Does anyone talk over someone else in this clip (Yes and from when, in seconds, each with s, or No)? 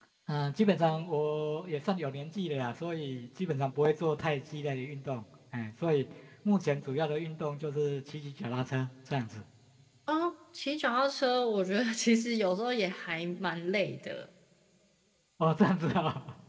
No